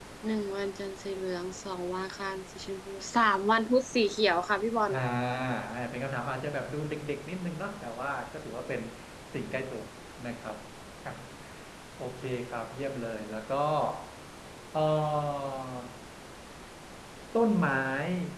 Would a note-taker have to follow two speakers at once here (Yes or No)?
No